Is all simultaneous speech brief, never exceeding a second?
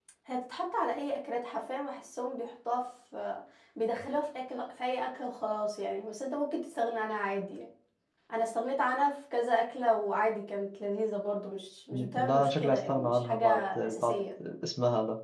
No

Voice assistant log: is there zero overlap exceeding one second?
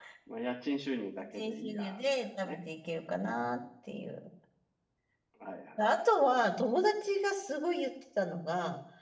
No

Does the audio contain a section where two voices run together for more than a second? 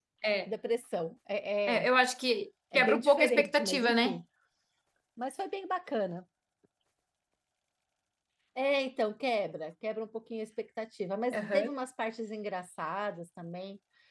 Yes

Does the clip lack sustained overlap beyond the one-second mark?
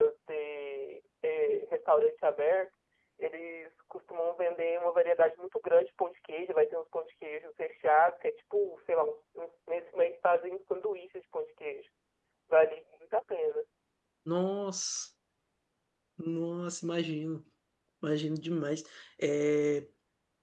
Yes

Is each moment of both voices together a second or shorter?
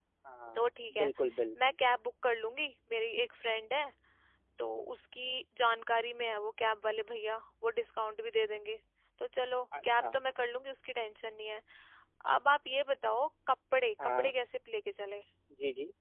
Yes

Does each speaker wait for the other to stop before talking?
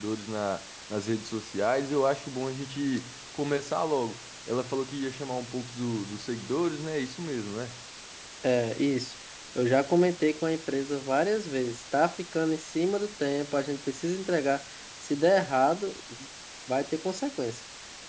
Yes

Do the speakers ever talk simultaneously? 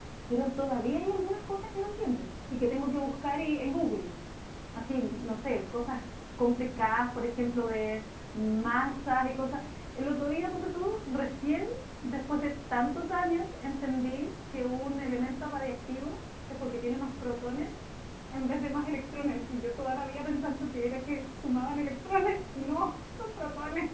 No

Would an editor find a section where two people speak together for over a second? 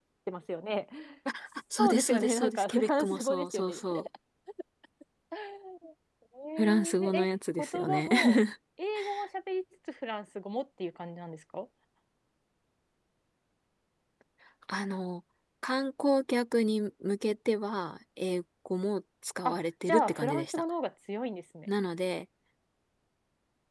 Yes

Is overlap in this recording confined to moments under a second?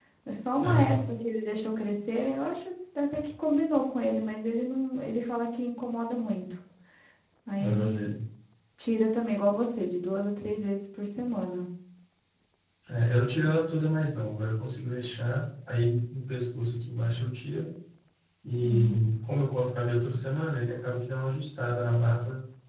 Yes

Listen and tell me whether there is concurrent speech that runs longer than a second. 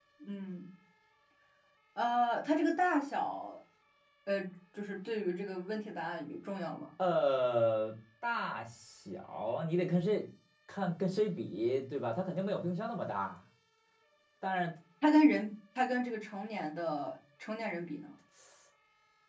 No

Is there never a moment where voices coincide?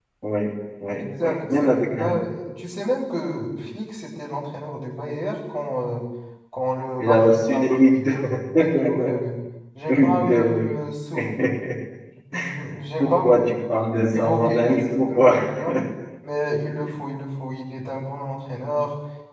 No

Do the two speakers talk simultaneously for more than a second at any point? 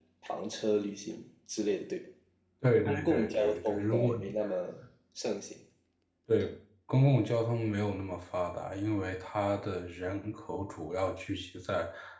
Yes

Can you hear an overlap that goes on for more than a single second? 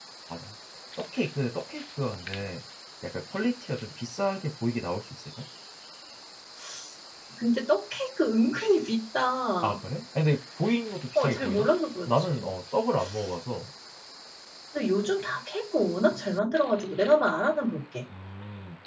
No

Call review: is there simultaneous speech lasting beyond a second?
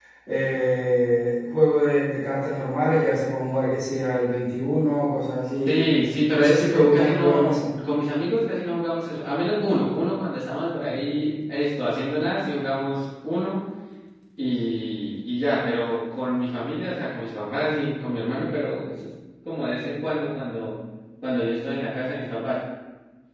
Yes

